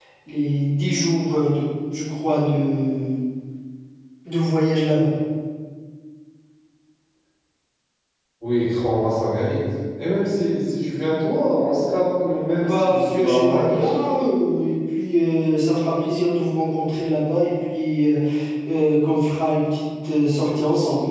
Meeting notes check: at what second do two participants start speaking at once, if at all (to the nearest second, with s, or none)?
13 s